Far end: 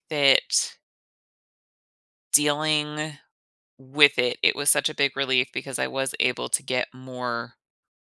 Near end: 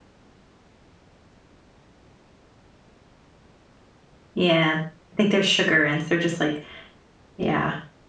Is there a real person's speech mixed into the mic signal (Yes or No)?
Yes